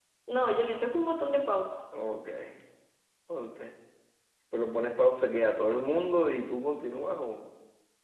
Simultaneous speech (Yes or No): No